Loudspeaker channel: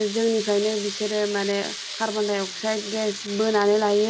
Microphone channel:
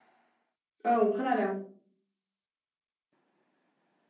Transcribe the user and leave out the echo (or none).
औ खोनादों